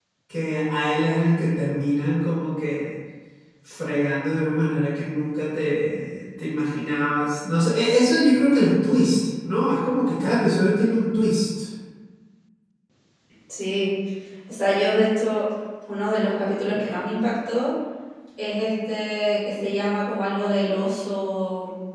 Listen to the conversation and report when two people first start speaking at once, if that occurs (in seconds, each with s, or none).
none